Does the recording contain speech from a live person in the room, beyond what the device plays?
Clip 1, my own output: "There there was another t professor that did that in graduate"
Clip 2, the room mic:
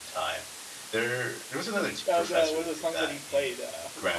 Yes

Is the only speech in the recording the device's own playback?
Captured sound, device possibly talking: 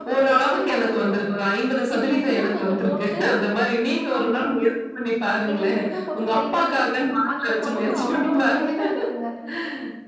No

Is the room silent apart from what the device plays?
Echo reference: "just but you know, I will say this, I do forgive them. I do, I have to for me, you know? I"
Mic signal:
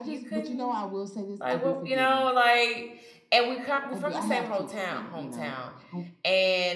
No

